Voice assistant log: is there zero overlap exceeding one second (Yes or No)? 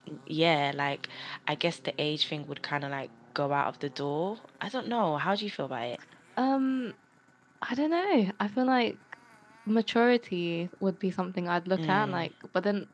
Yes